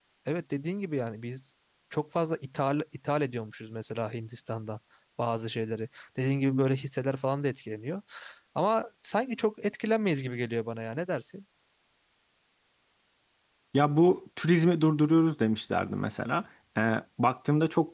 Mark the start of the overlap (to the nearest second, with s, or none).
none